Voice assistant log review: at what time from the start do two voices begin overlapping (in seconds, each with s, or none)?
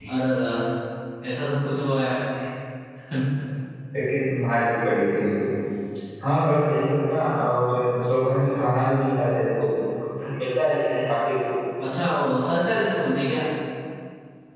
none